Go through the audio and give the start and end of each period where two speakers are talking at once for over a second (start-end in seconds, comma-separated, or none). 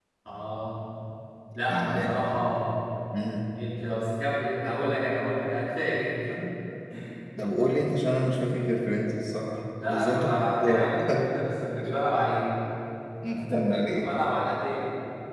9.9-11.2